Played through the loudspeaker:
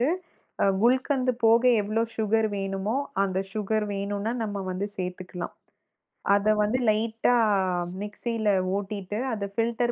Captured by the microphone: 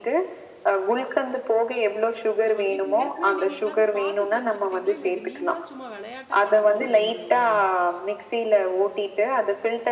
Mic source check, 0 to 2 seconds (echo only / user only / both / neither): echo only